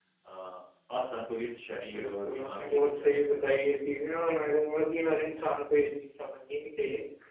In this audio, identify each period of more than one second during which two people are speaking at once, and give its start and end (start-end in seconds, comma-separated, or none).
1.9-3.6